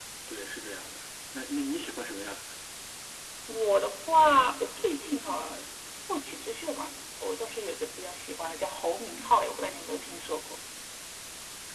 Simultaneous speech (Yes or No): No